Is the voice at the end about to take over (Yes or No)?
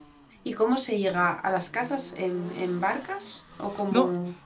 Yes